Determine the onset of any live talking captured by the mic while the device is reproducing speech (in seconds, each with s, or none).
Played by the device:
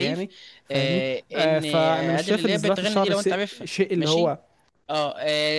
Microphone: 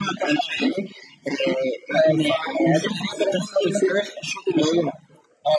none